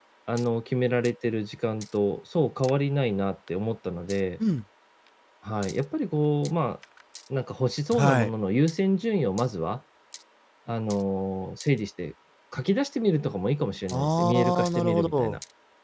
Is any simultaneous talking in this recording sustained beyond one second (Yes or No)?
Yes